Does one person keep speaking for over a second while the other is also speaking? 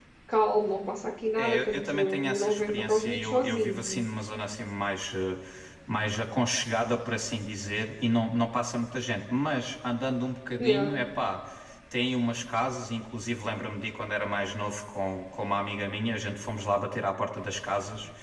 Yes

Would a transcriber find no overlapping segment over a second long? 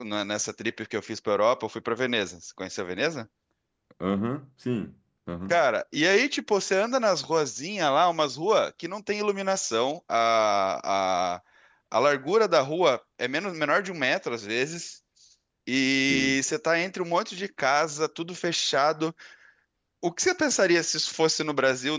Yes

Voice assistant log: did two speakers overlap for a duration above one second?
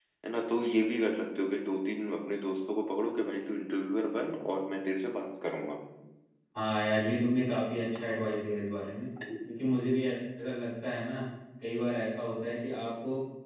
No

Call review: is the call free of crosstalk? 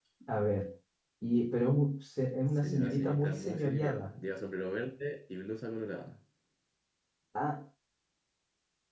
No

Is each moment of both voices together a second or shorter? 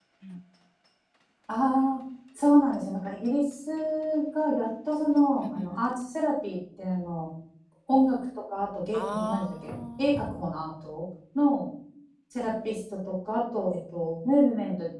No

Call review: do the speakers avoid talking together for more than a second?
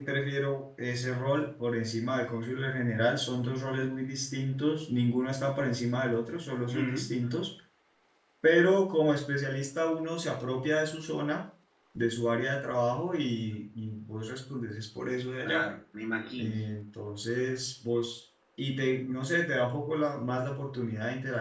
Yes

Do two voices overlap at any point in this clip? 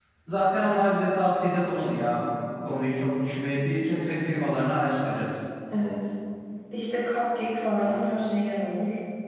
No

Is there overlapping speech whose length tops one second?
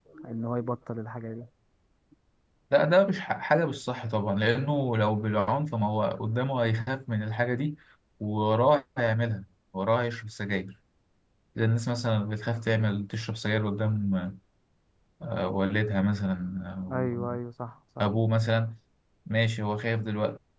No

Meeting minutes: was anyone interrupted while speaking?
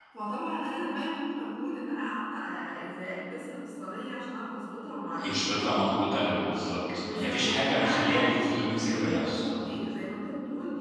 Yes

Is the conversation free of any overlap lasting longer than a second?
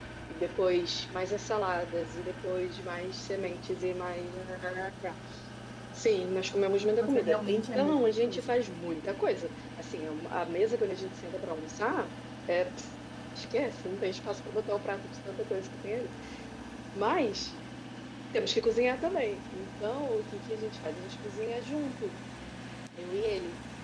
No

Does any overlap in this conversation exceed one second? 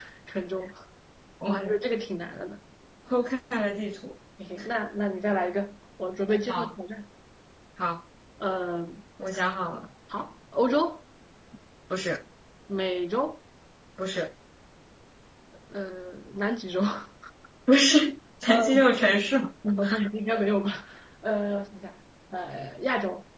No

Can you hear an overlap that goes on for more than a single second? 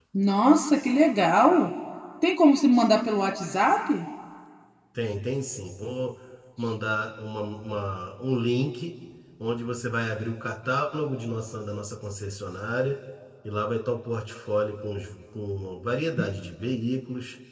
No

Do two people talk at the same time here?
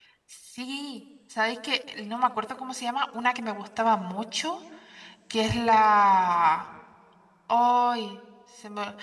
No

